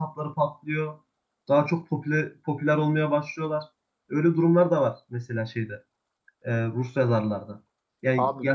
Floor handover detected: No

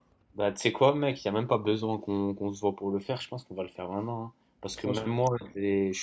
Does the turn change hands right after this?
No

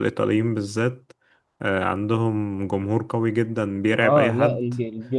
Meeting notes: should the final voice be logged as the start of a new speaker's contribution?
Yes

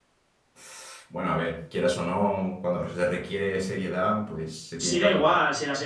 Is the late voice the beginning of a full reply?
Yes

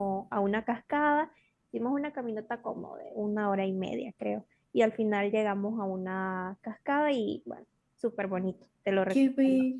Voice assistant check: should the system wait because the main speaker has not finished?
No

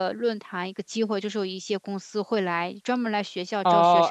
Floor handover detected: Yes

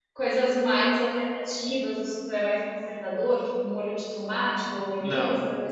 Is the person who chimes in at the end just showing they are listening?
No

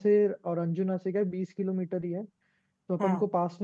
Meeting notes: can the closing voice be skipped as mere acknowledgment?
Yes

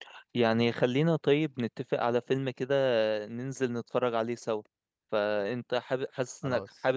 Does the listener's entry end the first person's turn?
No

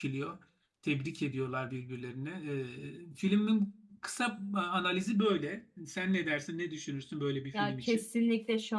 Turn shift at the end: Yes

